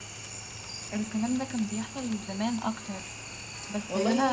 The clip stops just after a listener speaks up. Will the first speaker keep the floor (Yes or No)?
No